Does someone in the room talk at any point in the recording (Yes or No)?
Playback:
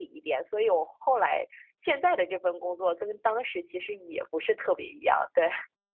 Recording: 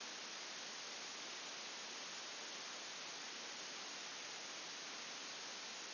No